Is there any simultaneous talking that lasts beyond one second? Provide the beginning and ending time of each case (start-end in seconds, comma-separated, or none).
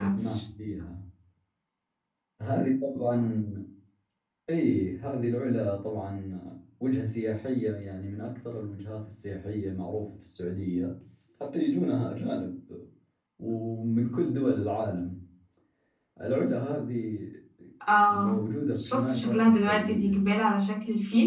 18.8-20.2